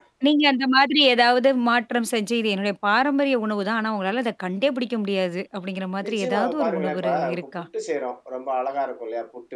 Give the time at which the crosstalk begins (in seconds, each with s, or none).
6.0 s